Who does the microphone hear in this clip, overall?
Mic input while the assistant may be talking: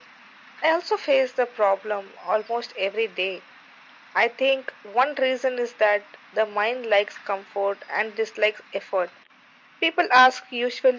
echo only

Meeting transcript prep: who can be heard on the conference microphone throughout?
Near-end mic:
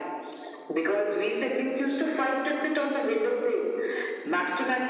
echo only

